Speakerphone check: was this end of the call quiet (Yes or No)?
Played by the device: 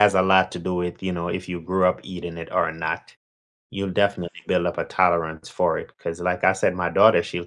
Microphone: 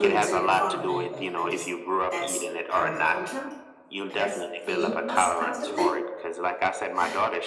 No